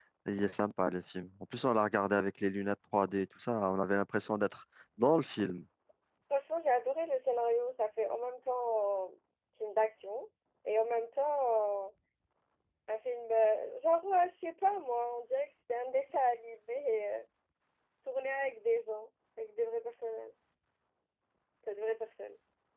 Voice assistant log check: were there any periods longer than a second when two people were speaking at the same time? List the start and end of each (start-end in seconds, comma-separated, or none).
none